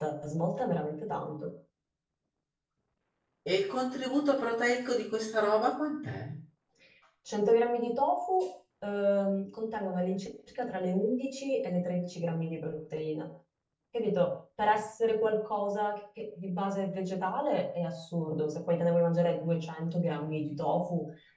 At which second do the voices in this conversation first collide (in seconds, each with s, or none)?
none